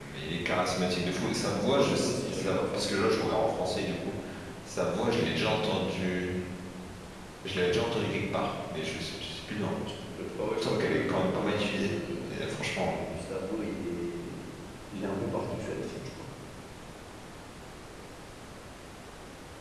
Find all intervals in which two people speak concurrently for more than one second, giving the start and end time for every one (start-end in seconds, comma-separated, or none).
1.8-3.0, 10.6-11.9